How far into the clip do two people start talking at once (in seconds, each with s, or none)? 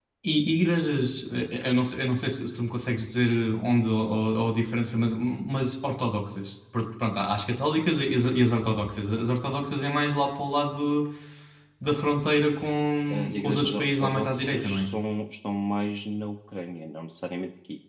13.1 s